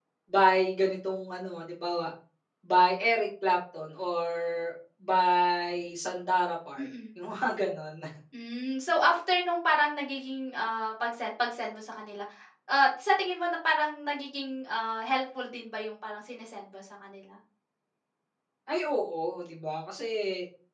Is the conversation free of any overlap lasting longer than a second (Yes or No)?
Yes